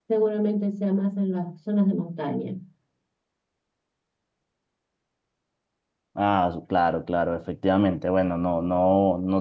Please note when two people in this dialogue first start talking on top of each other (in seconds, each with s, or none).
none